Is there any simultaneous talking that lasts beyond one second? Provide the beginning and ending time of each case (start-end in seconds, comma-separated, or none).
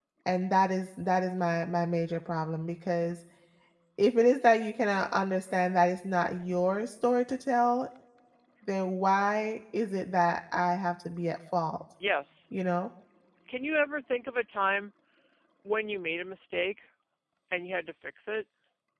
none